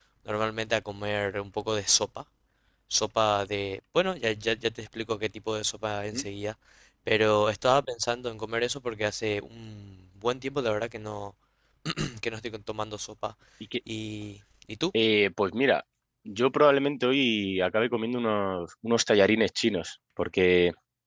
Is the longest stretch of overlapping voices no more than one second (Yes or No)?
Yes